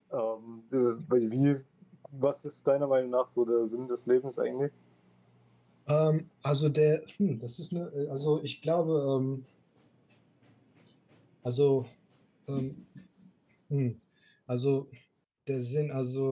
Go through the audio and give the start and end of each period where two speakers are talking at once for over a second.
none

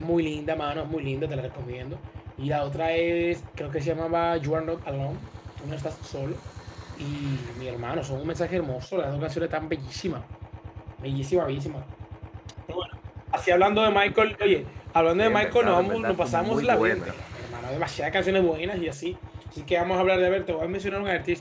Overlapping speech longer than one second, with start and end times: 15.2-17.1

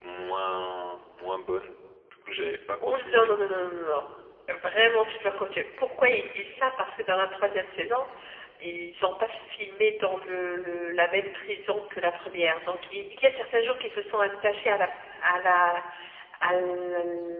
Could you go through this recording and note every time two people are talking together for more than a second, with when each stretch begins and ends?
none

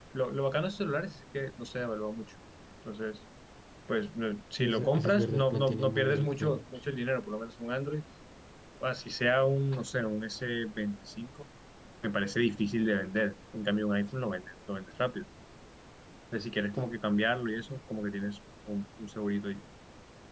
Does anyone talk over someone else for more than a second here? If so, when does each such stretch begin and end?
4.6-6.6

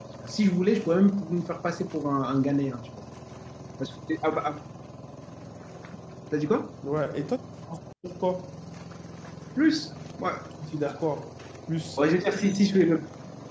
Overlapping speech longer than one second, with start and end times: none

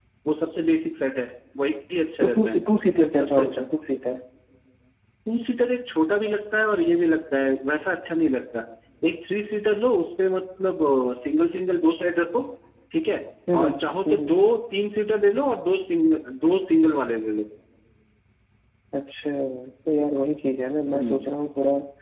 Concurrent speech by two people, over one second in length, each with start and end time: none

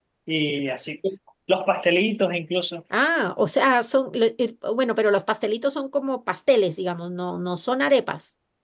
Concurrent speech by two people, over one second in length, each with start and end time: none

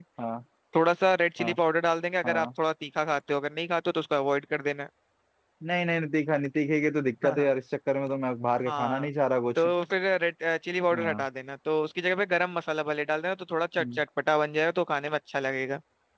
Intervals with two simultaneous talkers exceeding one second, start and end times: none

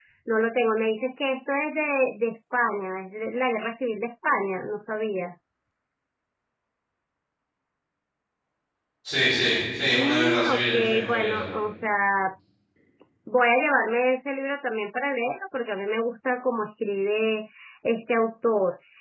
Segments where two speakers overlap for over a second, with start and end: 9.9-11.4

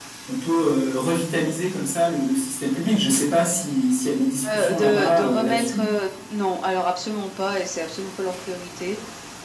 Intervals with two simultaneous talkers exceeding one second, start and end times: 4.4-5.9

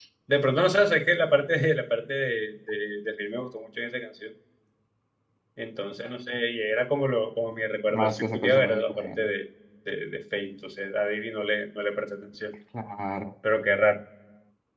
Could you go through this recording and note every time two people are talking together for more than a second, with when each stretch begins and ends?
7.9-9.3

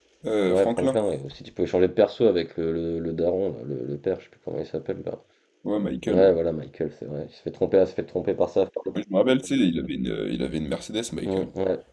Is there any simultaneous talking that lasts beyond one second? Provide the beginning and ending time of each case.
none

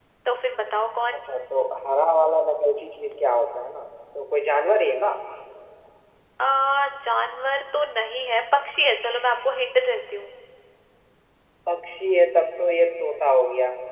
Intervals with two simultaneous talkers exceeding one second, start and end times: none

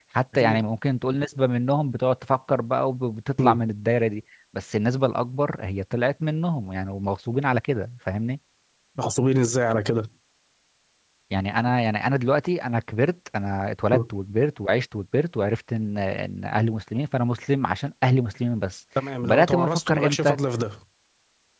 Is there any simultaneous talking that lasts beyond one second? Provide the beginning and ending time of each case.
19.0-20.4

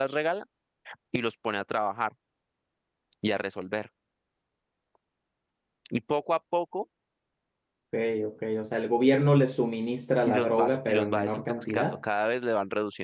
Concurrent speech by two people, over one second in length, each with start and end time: 10.2-12.0

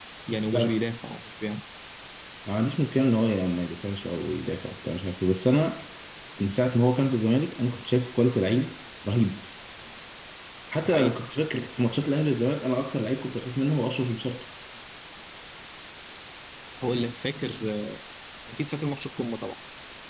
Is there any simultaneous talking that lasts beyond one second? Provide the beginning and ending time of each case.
none

